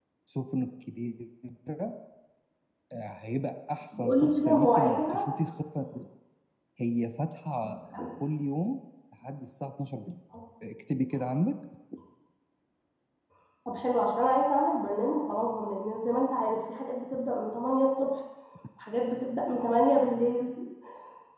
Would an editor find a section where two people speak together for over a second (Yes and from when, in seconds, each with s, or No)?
Yes, from 3.9 s